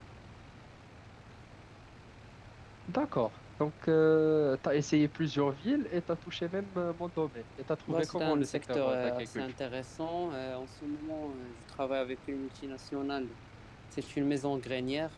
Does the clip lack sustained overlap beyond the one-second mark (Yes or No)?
No